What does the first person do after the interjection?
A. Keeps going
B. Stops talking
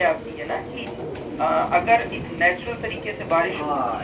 B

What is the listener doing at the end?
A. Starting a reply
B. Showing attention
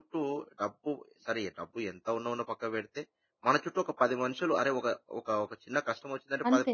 B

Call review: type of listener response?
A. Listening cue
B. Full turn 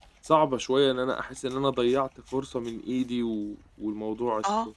A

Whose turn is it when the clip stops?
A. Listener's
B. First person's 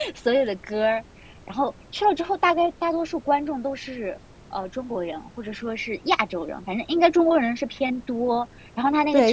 A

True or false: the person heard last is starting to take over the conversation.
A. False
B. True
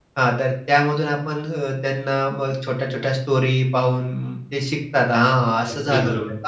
B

